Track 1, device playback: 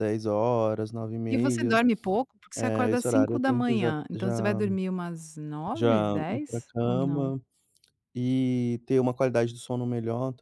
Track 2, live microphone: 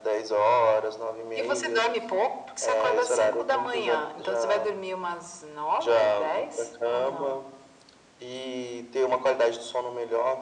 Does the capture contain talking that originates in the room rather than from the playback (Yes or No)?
No